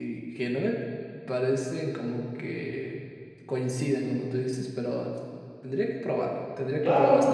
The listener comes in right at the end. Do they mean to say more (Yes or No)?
Yes